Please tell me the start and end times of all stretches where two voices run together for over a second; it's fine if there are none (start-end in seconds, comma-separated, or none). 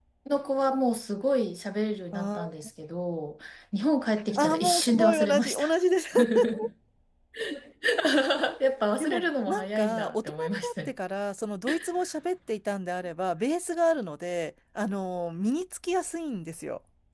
4.4-5.6, 9.0-10.9